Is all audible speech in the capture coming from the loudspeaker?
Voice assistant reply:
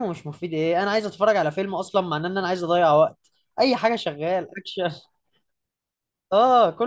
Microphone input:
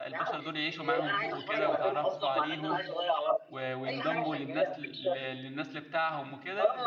No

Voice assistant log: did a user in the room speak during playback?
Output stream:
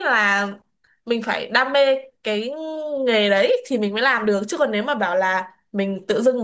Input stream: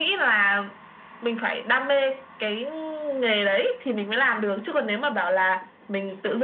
No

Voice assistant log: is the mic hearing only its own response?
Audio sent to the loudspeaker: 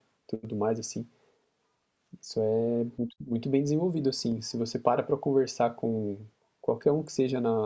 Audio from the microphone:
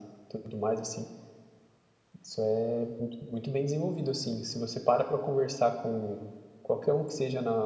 Yes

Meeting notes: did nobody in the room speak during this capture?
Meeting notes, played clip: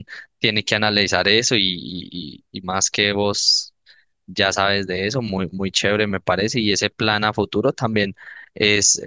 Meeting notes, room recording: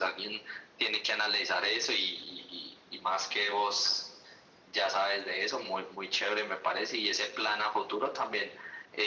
Yes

